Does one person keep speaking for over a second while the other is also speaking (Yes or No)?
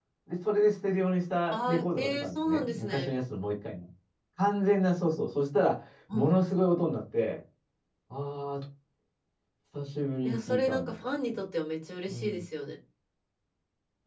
Yes